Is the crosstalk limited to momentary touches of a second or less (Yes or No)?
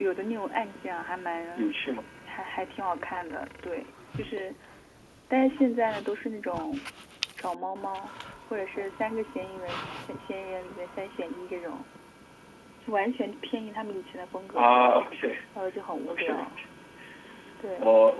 Yes